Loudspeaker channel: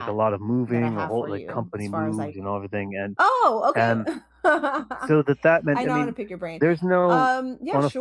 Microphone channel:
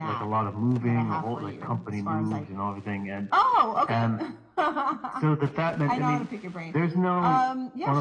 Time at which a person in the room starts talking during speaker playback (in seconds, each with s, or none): none